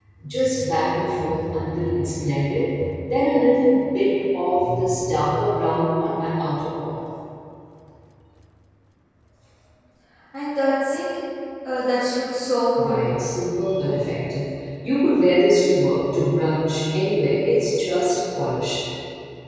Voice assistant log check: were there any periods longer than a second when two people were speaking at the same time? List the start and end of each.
none

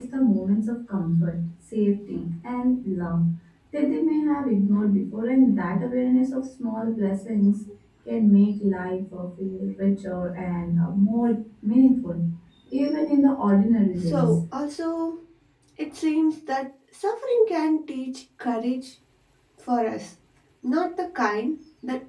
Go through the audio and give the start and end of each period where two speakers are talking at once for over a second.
none

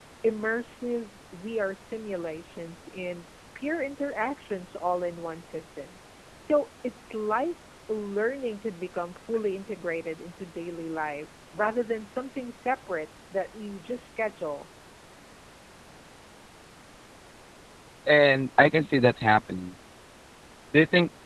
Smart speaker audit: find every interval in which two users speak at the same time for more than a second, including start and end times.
none

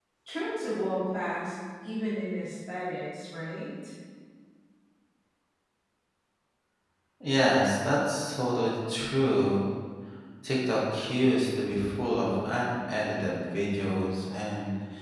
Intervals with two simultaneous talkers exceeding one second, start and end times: none

